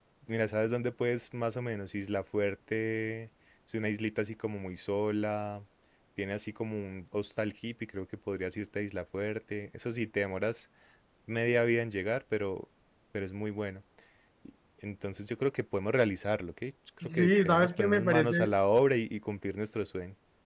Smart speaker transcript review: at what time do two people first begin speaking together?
17.0 s

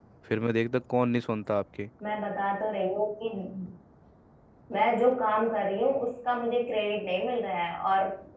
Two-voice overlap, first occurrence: none

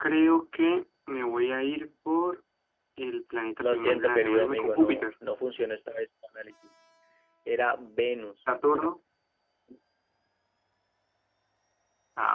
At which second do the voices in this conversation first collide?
3.6 s

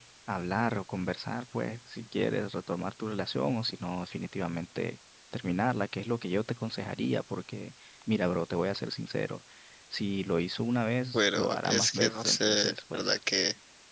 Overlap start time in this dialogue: 11.1 s

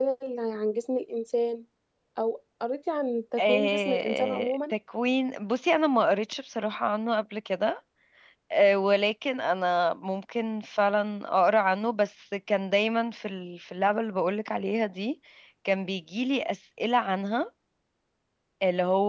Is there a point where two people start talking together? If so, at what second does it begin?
3.4 s

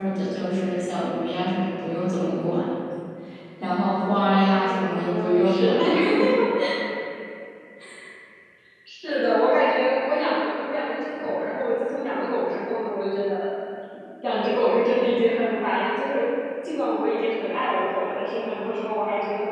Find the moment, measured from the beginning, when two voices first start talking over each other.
4.2 s

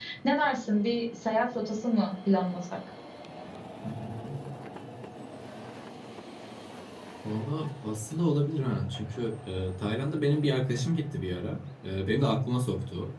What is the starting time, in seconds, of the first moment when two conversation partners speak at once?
none

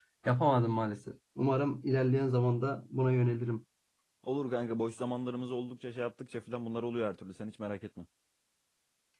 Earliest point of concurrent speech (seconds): none

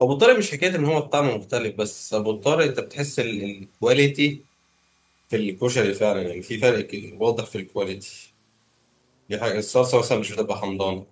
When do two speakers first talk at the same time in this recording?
none

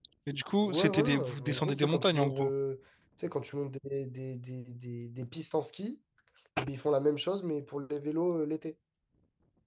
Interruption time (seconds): 0.6 s

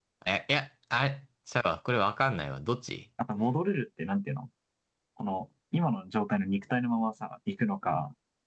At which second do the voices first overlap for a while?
none

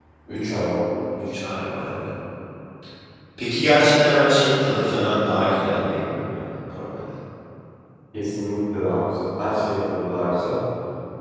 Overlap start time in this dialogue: none

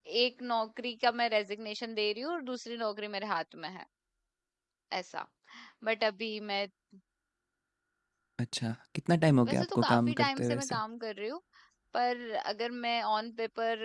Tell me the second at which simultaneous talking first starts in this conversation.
9.4 s

